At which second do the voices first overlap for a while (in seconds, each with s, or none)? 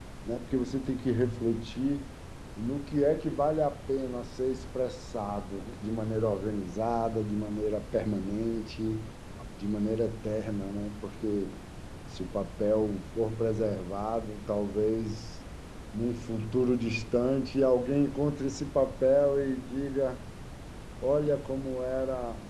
none